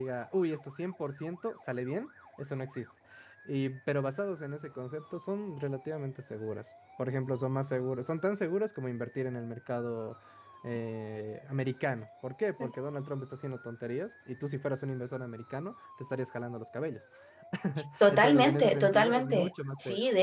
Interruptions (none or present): present